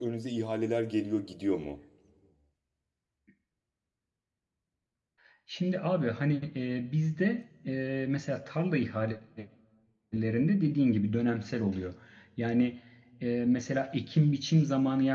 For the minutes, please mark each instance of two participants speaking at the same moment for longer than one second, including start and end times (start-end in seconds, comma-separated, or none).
none